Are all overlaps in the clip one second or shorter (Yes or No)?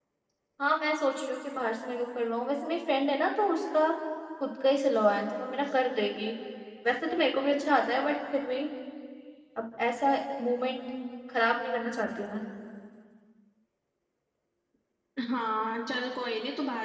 Yes